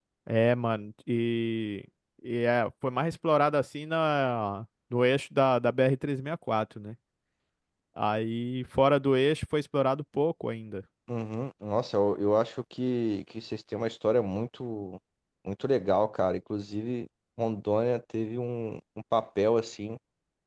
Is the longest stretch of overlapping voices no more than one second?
Yes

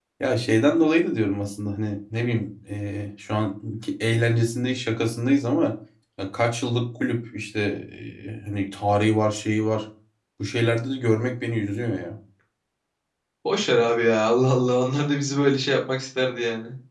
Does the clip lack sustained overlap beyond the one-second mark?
Yes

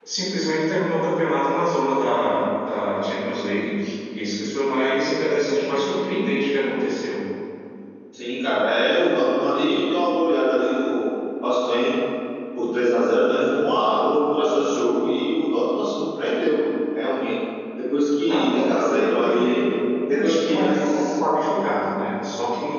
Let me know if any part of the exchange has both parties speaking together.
Yes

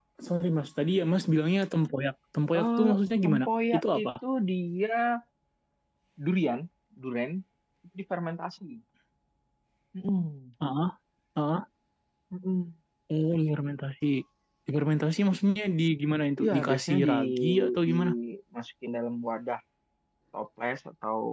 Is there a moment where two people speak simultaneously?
Yes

